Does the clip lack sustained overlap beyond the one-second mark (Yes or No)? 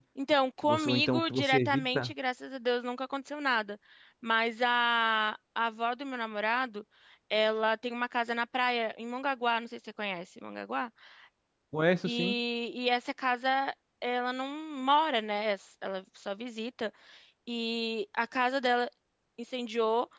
No